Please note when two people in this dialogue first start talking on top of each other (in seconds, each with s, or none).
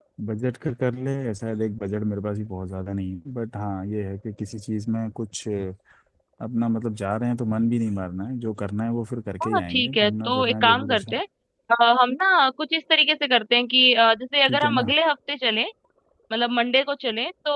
9.4 s